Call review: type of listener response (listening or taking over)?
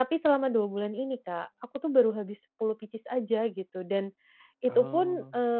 listening